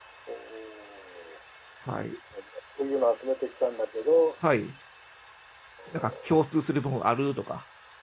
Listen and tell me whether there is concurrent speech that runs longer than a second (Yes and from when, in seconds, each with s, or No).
No